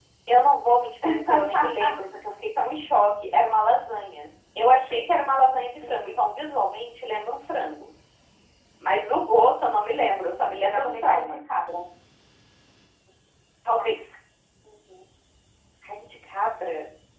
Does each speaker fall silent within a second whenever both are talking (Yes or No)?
No